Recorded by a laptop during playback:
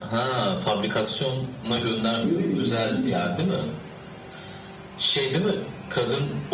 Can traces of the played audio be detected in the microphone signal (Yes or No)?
Yes